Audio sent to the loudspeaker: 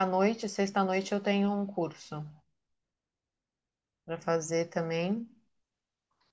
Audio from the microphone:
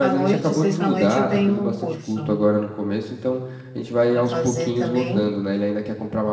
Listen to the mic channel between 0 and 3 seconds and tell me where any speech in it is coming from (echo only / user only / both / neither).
both